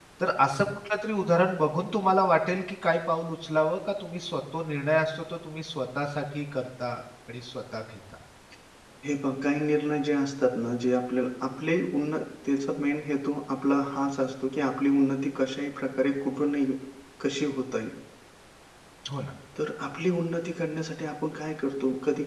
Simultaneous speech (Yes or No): No